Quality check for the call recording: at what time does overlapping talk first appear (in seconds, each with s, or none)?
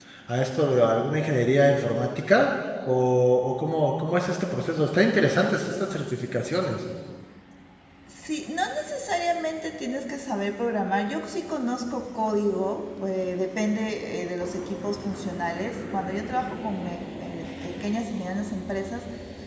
none